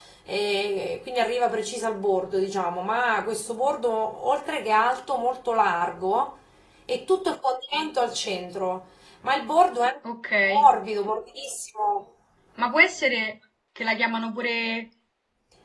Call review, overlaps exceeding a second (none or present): none